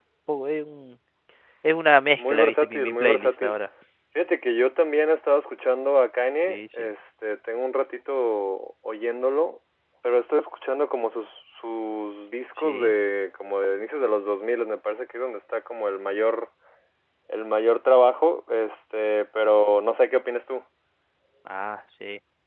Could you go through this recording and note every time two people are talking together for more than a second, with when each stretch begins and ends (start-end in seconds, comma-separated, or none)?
2.2-3.5